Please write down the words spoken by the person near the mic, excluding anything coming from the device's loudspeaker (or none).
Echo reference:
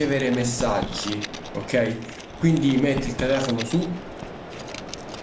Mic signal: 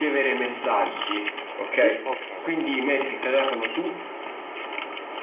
Di... Ok, perfetto.